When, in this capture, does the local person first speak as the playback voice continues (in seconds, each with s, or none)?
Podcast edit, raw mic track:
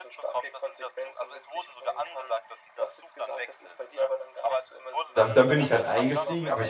5.1 s